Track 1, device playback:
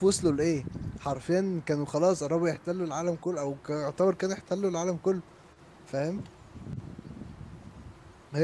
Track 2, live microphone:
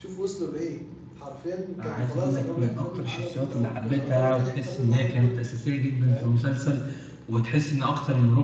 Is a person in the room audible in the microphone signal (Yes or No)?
Yes